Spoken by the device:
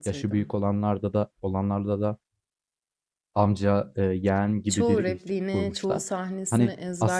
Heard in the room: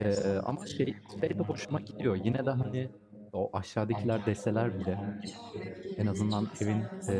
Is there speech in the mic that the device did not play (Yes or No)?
Yes